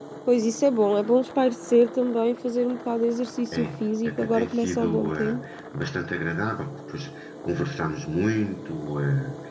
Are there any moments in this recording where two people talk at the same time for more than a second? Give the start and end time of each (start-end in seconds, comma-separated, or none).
3.5-5.4